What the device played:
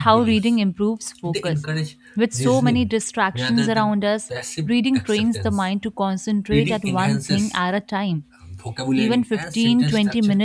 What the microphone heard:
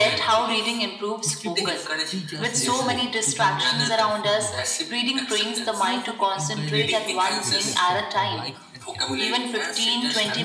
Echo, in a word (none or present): present